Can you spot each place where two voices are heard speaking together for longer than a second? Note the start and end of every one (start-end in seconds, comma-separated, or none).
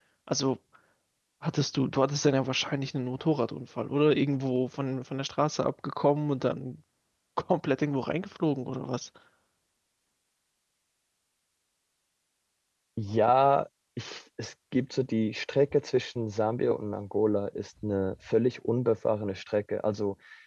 none